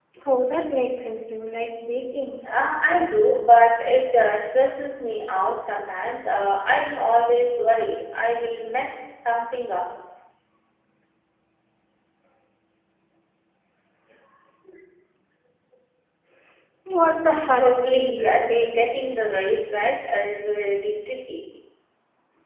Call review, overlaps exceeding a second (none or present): present